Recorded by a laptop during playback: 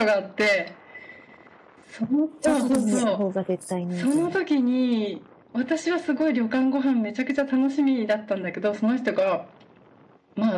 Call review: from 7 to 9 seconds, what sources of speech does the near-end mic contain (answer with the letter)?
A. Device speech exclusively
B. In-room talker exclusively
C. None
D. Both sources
A